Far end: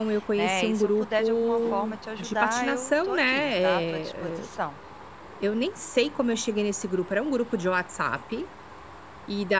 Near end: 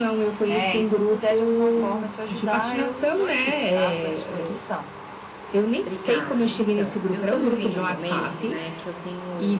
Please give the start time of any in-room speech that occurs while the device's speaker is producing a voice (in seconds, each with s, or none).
5.9 s